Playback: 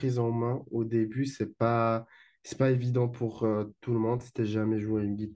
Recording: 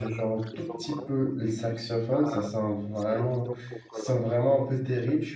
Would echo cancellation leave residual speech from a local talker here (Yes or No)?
Yes